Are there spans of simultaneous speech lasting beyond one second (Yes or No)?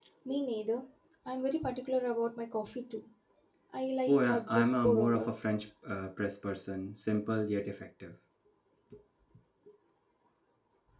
Yes